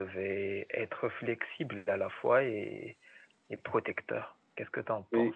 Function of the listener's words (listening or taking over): taking over